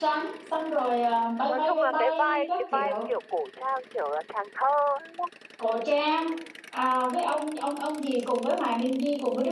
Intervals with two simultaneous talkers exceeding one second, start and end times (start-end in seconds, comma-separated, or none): 1.5-3.0